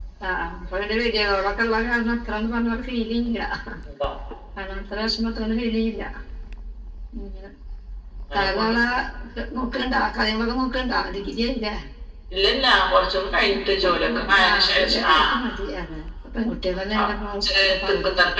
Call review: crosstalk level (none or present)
present